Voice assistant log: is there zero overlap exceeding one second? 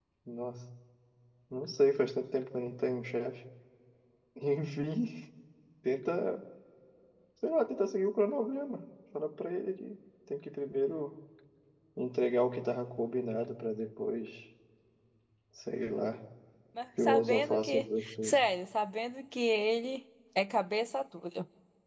No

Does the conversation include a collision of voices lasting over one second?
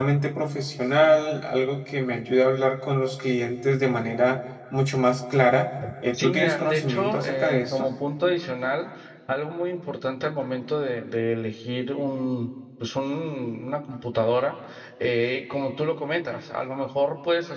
Yes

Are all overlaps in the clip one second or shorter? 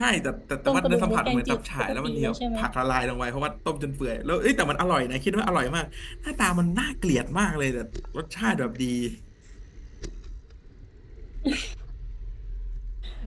No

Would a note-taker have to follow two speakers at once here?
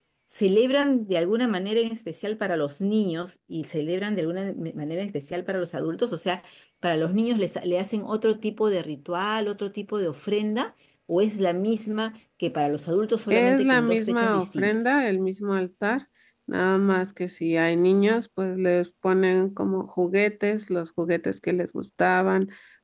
Yes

